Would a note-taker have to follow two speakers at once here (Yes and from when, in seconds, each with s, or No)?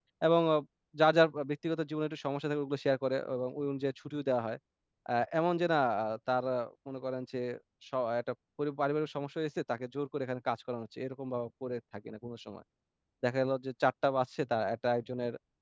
No